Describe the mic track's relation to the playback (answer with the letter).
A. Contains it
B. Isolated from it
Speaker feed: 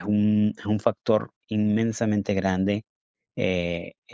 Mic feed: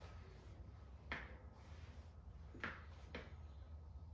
B